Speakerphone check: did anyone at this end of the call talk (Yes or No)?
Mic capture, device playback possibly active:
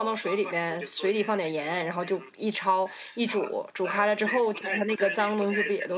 Yes